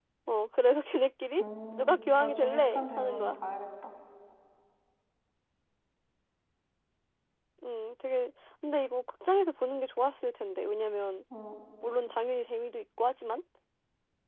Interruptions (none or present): present